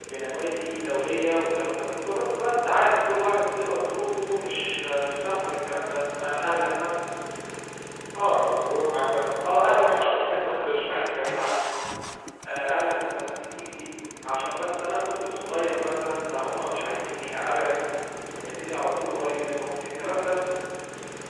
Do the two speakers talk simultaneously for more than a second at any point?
Yes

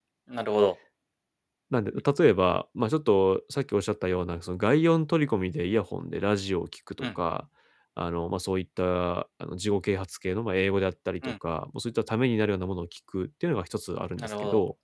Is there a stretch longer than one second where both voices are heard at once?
No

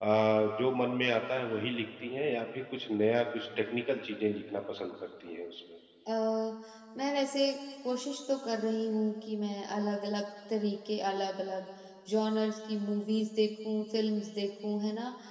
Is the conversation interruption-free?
Yes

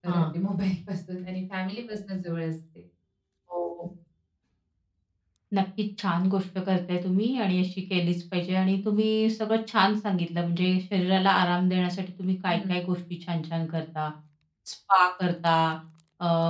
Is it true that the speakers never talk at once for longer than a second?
Yes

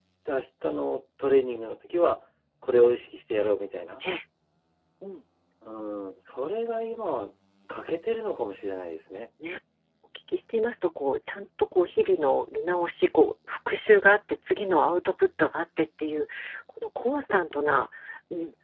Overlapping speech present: No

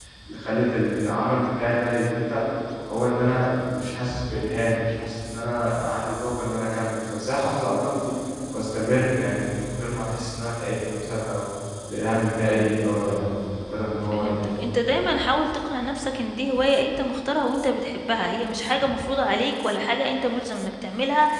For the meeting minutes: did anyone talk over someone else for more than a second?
No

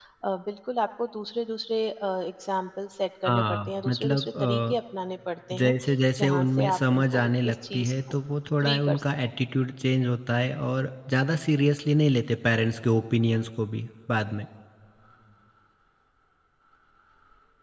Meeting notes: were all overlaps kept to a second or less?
No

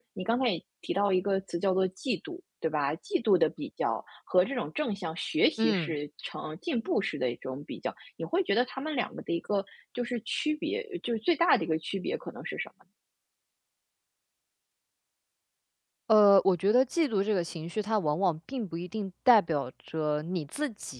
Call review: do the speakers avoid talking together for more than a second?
Yes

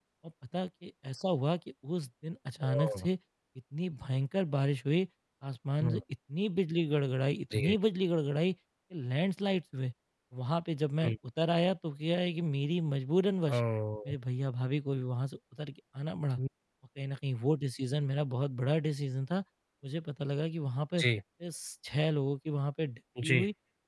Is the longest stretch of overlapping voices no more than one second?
Yes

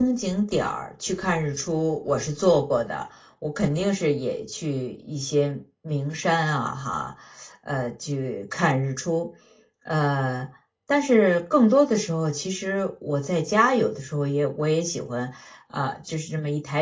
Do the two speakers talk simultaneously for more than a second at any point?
No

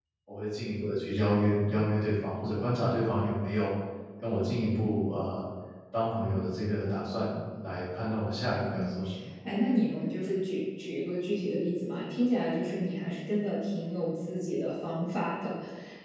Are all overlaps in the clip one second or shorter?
Yes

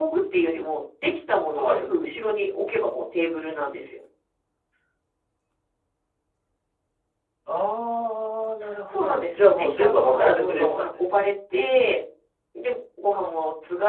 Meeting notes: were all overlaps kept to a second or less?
No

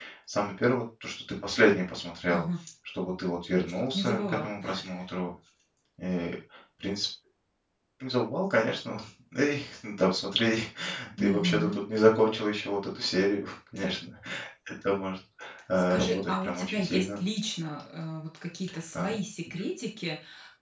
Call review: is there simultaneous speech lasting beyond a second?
Yes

